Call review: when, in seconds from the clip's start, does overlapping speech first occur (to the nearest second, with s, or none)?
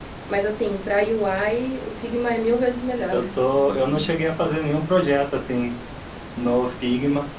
none